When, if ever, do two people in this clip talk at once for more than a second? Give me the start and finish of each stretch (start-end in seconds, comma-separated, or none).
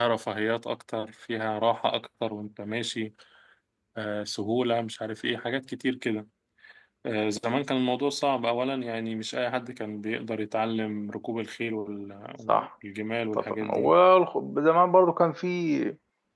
none